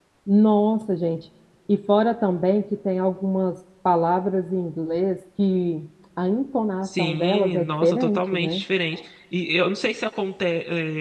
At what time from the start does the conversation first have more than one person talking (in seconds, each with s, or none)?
6.8 s